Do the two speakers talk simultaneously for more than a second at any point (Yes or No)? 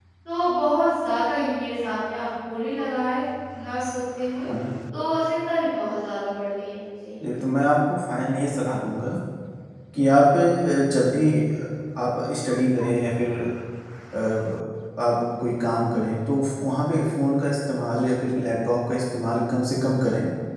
No